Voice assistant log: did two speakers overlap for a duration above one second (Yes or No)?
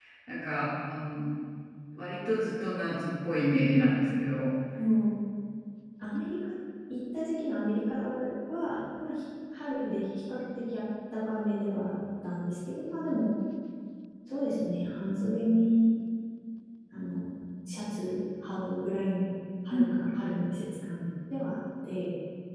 No